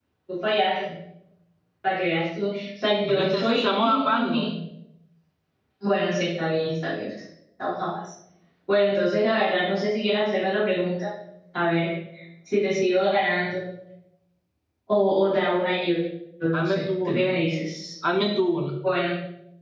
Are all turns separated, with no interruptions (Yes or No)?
No